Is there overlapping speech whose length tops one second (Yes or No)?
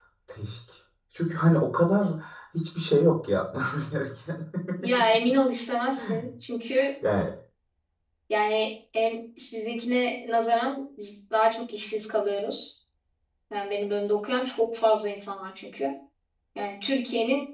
No